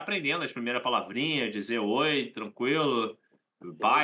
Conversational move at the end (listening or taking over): taking over